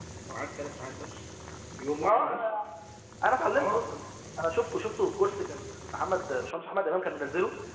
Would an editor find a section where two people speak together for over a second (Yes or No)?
No